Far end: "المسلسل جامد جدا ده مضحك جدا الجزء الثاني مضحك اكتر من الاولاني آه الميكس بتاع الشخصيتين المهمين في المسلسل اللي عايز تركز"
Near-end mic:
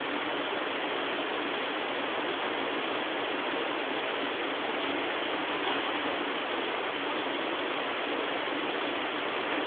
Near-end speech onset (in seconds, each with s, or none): none